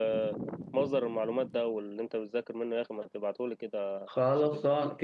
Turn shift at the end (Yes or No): Yes